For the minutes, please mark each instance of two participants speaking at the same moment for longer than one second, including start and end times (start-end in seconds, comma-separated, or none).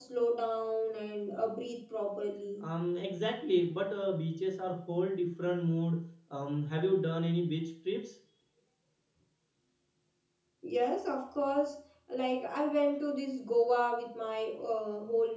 none